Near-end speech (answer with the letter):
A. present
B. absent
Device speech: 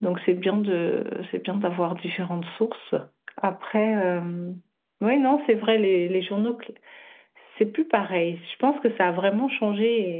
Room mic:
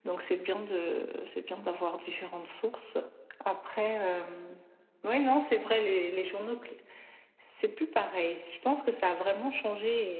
B